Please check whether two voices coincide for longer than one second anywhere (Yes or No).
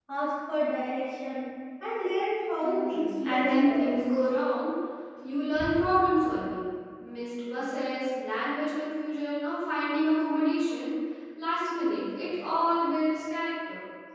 Yes